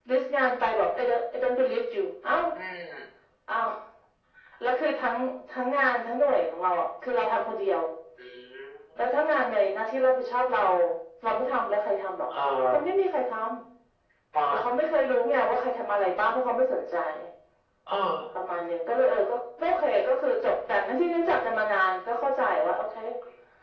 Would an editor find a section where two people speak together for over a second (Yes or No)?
No